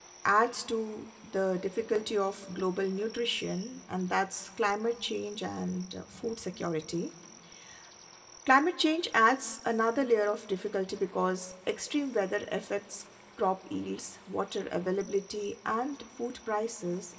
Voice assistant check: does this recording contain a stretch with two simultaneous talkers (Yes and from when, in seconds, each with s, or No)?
No